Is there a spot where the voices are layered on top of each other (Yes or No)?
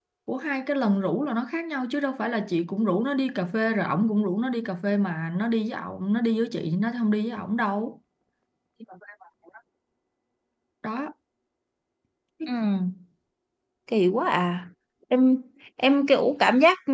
No